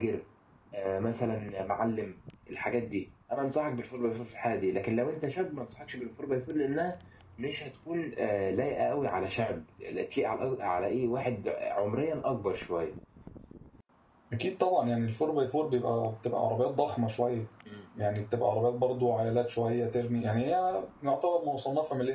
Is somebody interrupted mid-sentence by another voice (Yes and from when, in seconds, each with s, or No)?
No